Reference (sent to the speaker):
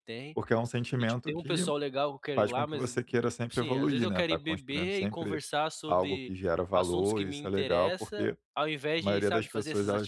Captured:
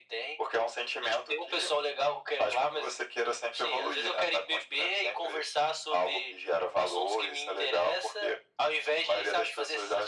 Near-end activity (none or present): none